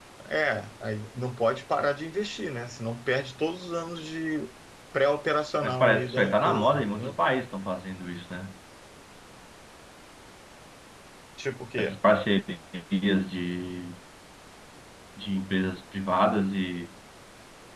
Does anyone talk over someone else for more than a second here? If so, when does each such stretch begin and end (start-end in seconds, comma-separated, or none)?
5.6-7.2